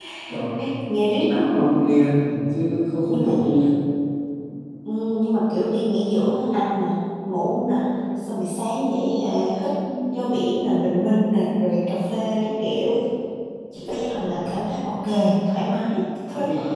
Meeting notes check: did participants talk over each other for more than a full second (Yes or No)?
No